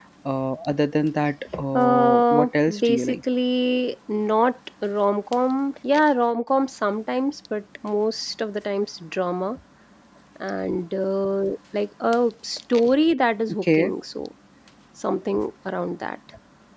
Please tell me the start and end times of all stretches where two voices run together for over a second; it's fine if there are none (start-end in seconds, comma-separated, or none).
1.7-3.2